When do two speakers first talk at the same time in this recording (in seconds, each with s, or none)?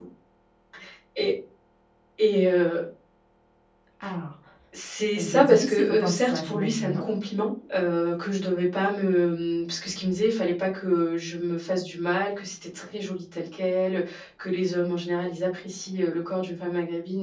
5.2 s